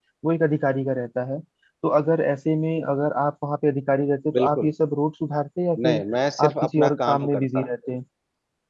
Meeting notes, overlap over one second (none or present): present